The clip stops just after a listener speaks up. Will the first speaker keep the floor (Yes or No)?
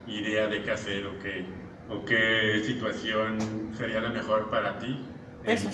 No